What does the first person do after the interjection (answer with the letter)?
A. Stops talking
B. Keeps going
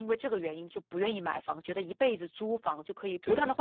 B